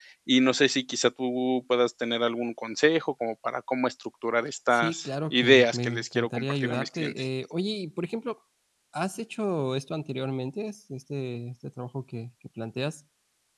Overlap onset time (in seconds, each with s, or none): 4.7 s